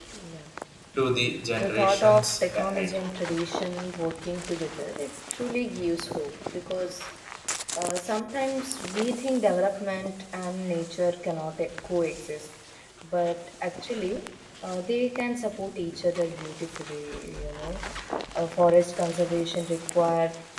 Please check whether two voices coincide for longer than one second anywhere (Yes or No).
Yes